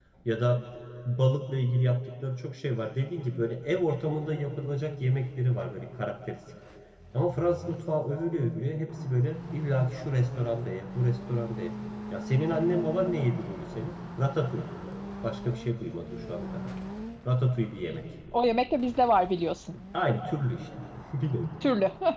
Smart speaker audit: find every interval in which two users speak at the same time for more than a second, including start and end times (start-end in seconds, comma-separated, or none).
none